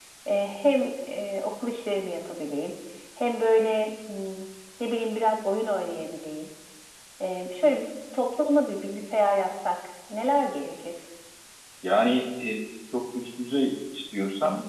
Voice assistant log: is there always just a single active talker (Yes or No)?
Yes